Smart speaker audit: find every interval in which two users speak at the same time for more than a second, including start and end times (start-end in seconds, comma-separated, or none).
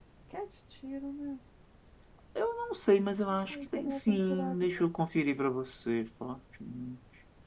3.3-4.8